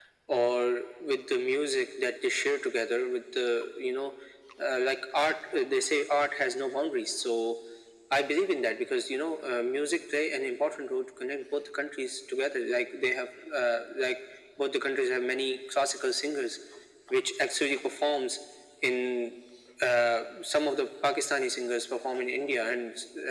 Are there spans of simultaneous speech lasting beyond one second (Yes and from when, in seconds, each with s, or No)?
No